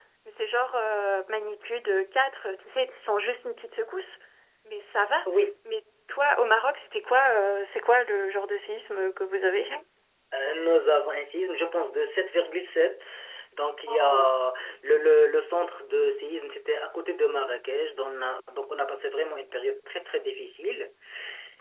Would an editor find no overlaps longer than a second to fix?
Yes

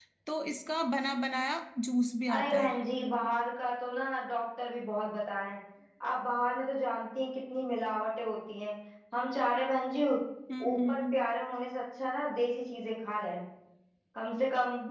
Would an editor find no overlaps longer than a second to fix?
Yes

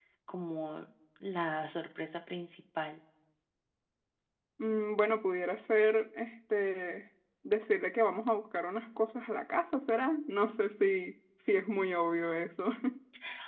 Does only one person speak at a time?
Yes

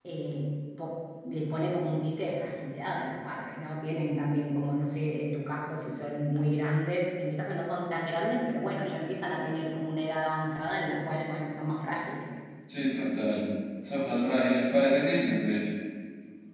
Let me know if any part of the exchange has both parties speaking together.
No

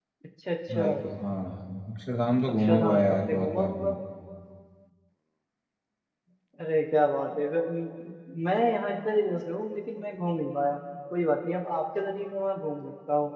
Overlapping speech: Yes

